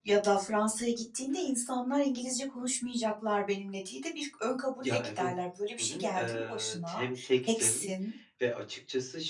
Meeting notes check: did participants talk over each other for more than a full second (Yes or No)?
Yes